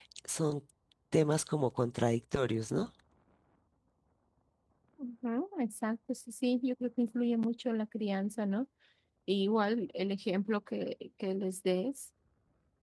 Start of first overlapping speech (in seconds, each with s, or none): none